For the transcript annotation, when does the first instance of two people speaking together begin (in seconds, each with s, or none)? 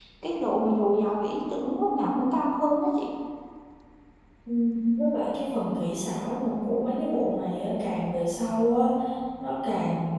none